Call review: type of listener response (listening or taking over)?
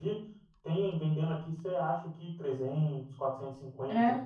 listening